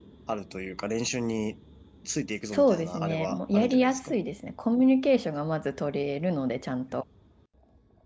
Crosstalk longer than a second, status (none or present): present